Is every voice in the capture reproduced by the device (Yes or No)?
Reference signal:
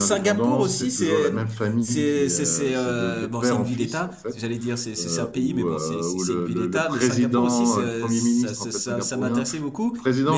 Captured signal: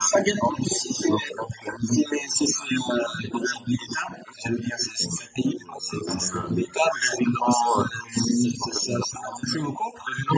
No